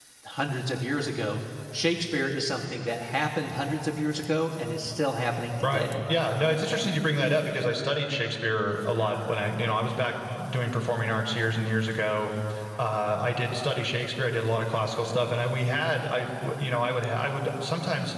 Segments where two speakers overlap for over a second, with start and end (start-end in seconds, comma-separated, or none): none